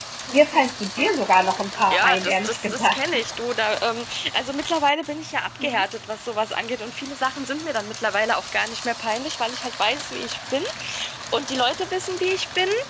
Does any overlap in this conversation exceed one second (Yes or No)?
Yes